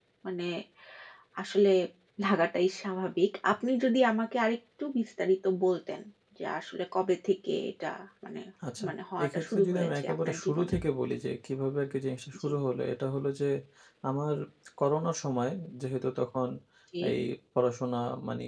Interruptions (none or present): present